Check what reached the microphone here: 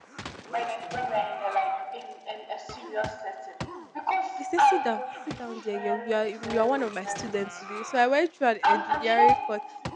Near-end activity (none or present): present